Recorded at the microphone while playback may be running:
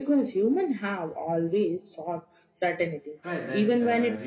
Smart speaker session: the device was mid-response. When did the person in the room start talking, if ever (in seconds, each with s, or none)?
3.2 s